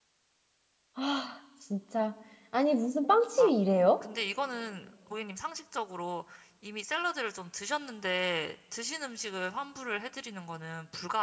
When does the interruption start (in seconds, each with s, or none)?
none